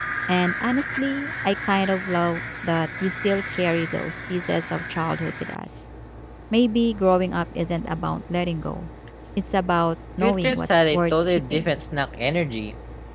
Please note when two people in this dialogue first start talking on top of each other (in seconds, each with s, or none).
10.2 s